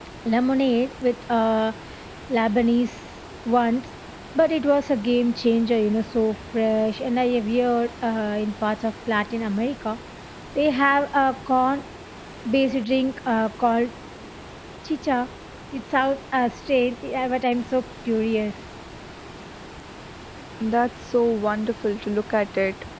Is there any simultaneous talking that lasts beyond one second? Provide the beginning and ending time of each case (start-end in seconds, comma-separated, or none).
none